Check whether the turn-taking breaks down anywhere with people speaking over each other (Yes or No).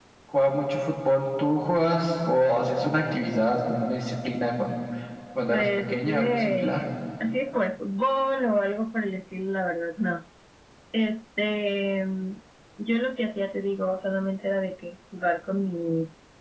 Yes